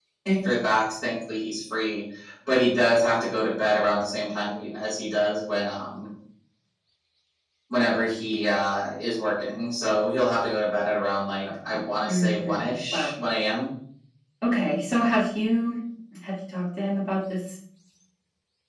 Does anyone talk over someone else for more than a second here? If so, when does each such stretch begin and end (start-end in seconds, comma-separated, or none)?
11.7-13.1